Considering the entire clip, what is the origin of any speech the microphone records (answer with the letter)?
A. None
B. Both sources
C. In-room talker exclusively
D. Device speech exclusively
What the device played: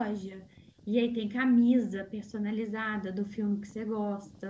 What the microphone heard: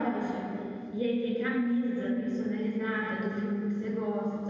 D